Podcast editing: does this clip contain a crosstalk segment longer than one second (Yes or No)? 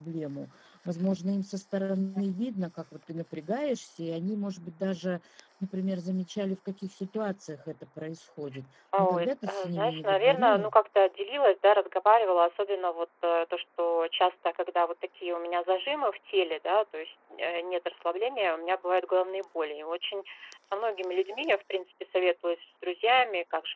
Yes